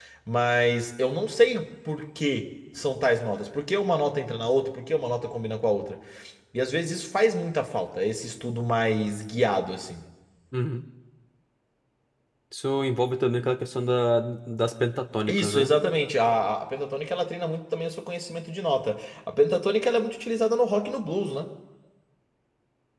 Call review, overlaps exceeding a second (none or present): none